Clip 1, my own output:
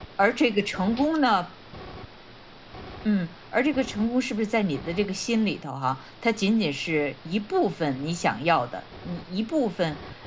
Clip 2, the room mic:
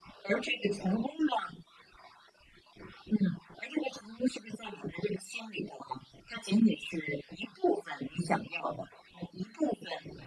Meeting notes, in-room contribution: none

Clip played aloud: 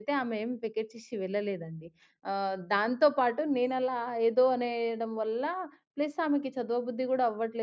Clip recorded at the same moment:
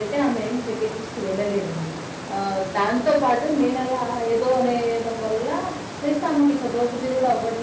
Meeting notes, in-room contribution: none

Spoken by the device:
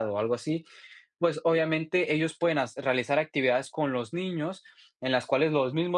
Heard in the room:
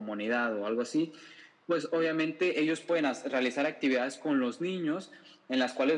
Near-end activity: none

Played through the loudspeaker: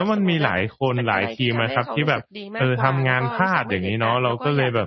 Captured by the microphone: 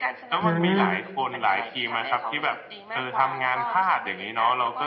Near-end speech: present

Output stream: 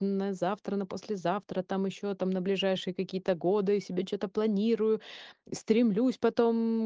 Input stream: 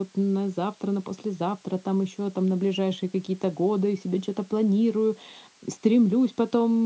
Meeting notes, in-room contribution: none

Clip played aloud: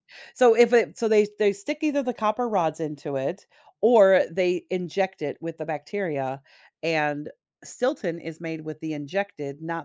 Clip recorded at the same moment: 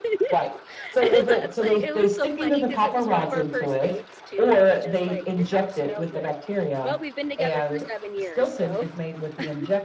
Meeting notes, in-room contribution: present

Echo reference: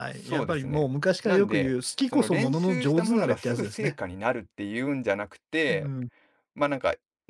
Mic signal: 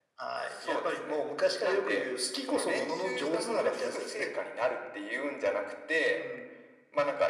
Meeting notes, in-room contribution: none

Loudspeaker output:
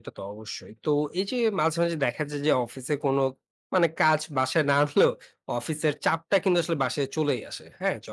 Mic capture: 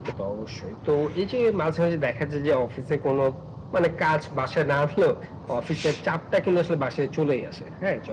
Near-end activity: none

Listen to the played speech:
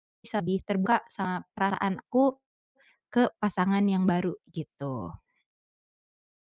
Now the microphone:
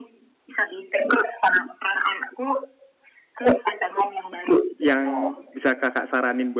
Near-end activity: present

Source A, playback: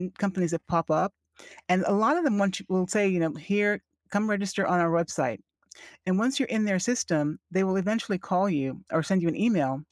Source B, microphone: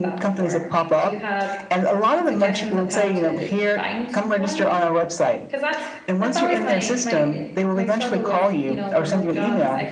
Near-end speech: present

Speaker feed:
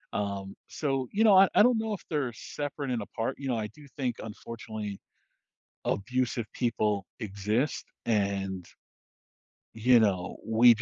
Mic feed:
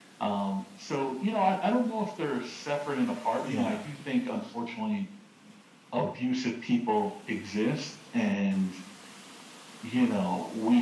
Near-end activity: present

